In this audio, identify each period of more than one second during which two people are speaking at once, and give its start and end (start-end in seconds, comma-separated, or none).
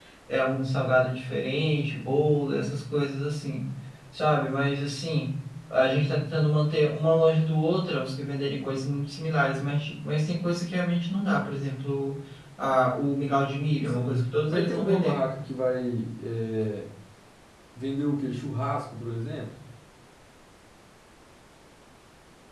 13.9-15.2